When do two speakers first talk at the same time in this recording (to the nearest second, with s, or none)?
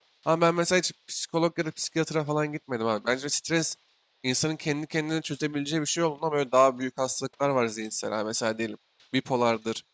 none